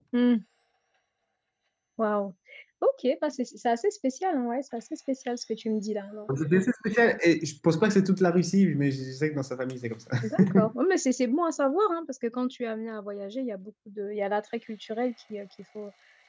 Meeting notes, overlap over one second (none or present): none